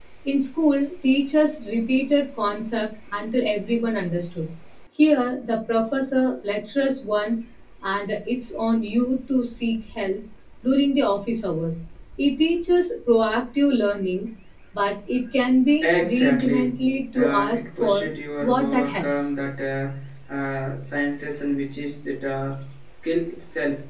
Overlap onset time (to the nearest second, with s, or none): 16 s